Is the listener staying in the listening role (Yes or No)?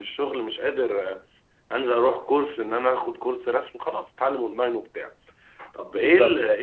Yes